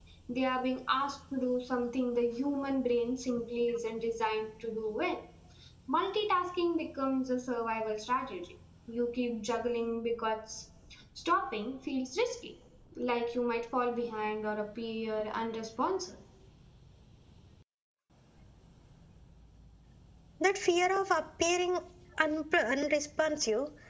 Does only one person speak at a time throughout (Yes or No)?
Yes